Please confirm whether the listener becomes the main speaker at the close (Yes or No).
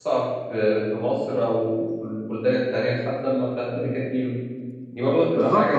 Yes